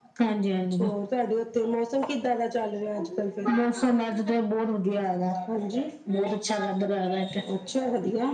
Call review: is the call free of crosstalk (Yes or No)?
Yes